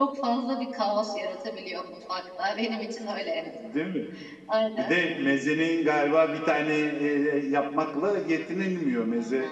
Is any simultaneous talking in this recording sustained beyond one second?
No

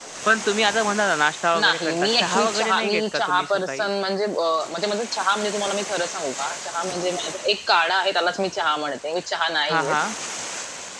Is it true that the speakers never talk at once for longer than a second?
No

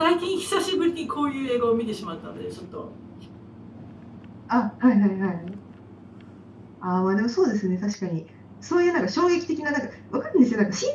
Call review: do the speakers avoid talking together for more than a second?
Yes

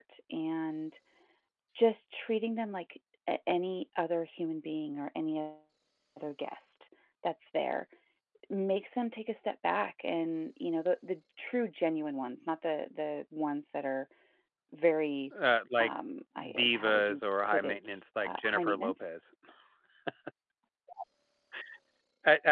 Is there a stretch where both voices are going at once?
Yes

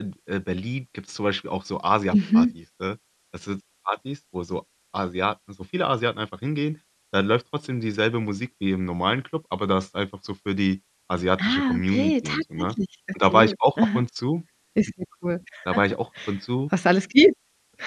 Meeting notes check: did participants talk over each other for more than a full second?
Yes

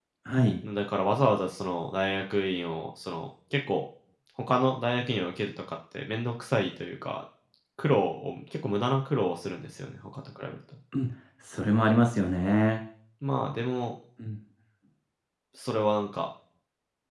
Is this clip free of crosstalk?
Yes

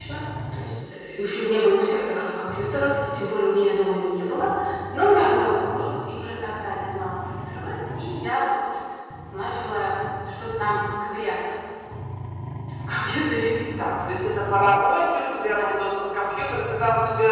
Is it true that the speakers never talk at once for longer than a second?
Yes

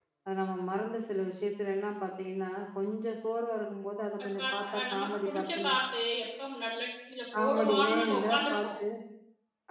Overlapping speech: Yes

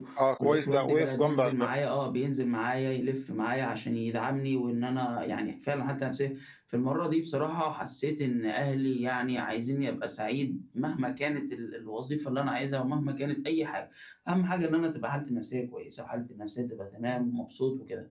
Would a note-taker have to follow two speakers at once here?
Yes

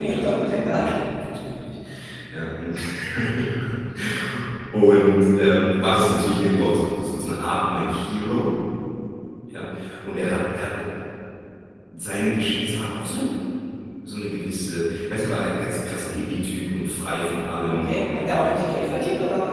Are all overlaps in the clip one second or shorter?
No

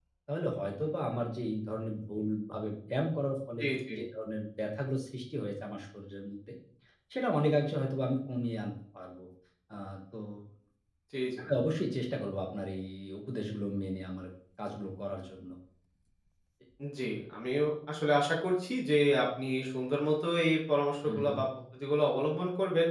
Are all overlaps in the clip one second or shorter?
Yes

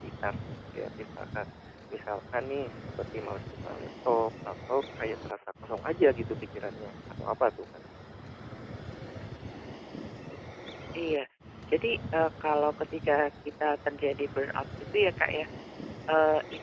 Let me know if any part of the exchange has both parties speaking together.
No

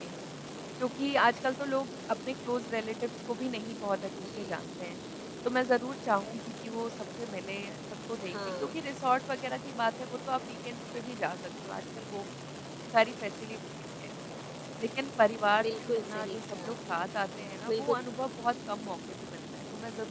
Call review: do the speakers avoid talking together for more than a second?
No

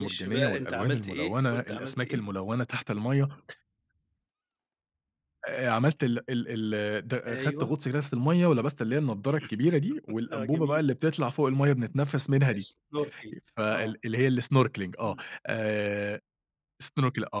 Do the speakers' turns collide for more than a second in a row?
Yes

